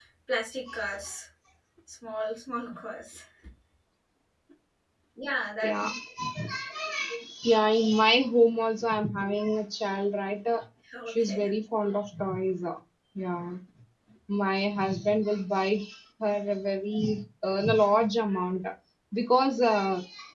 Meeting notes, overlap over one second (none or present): none